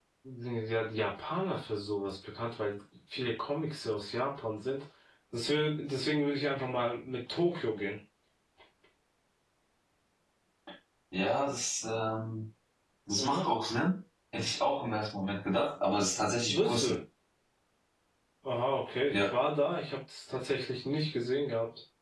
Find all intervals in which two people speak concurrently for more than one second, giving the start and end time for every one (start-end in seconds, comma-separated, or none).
none